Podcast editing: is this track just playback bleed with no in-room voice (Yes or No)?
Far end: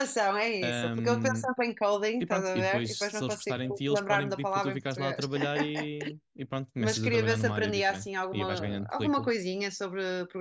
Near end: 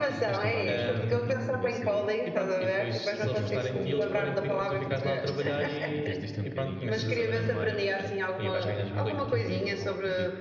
No